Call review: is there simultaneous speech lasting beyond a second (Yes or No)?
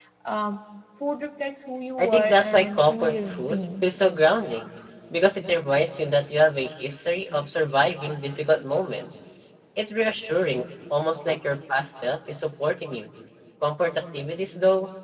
Yes